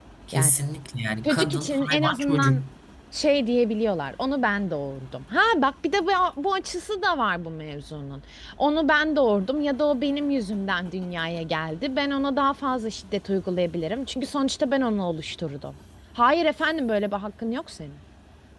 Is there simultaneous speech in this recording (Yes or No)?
Yes